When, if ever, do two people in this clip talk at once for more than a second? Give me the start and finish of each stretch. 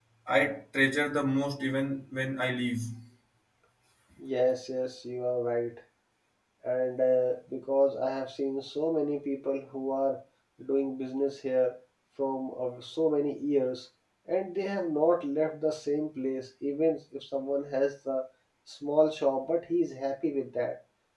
none

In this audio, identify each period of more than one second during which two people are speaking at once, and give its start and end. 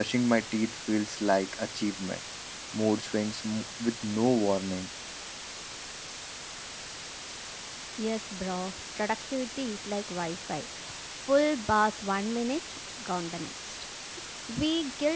none

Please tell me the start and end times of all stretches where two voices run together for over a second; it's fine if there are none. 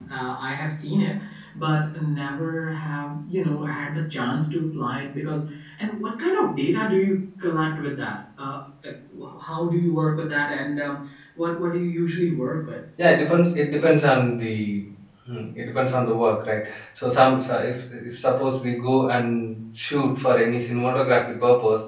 none

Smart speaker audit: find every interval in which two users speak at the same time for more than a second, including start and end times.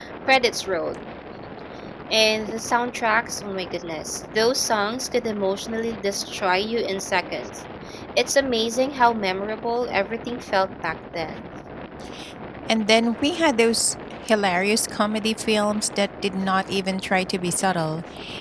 none

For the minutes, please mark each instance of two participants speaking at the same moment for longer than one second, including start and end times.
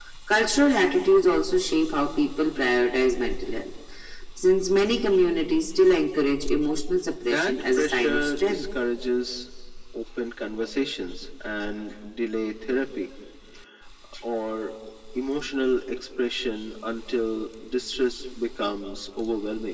7.2-8.6

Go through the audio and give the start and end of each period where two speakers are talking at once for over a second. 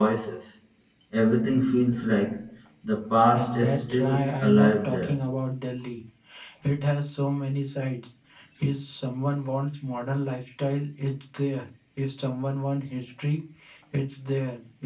3.3-5.2

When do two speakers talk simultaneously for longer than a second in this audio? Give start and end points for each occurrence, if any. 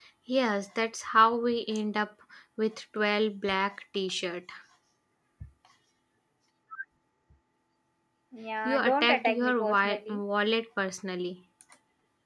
8.6-10.2

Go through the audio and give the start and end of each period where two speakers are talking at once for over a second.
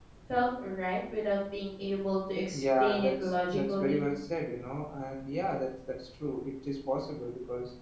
2.5-4.0

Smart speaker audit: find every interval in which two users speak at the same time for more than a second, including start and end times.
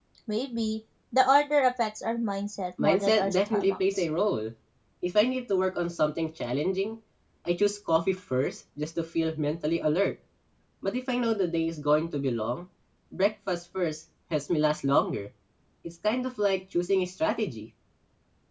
2.8-4.0

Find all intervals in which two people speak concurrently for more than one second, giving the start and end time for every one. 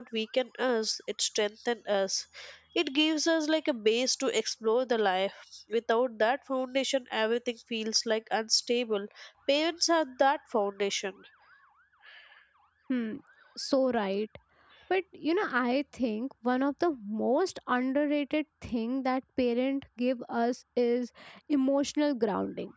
none

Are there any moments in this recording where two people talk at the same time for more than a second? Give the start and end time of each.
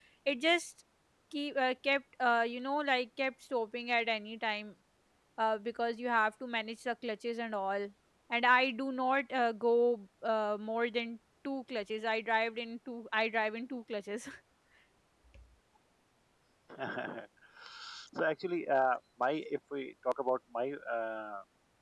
none

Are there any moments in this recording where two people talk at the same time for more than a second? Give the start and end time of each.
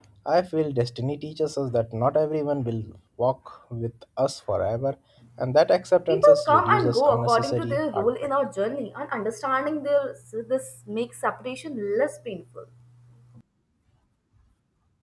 6.1-8.1

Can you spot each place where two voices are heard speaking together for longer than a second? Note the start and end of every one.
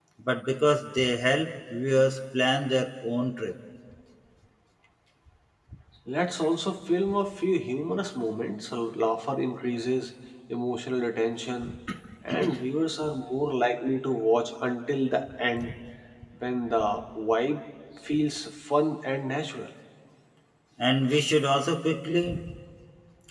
none

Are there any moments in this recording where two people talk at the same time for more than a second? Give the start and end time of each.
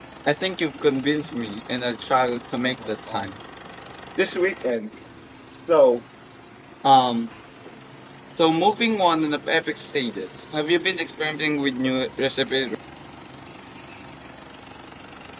none

